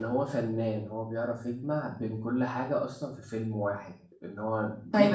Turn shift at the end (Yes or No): Yes